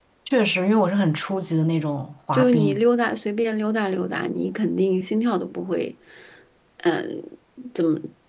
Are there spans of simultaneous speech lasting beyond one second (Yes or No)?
No